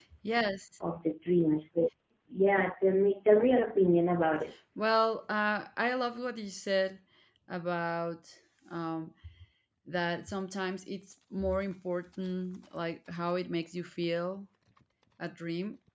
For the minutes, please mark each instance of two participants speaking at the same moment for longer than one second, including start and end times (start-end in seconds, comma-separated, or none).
none